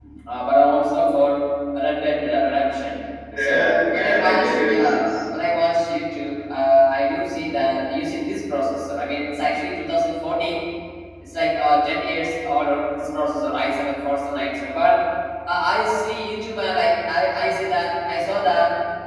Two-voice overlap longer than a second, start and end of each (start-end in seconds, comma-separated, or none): 3.4-5.2